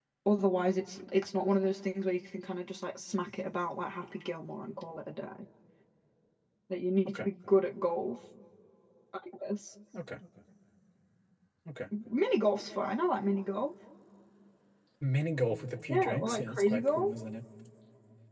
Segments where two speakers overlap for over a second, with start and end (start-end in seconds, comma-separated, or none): 15.9-17.1